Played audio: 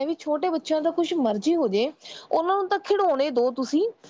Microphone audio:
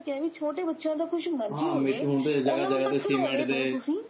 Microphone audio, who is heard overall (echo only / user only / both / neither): both